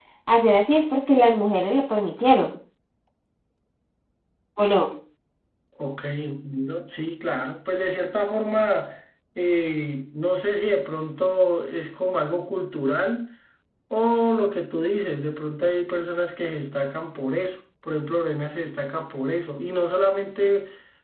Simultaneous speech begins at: none

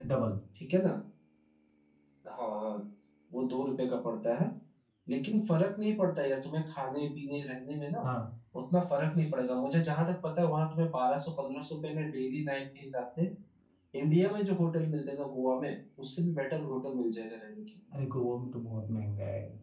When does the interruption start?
none

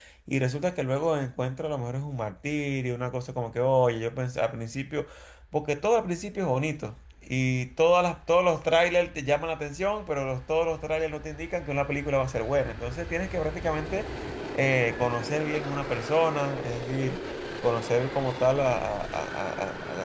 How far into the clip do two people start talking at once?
none

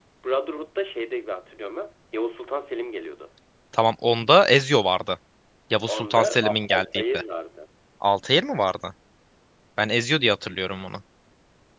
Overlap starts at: 5.9 s

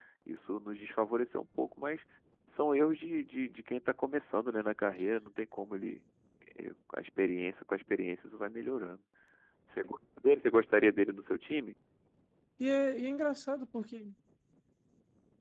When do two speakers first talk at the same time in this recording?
none

